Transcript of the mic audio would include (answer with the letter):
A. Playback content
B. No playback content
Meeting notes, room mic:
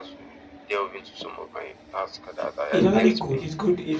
A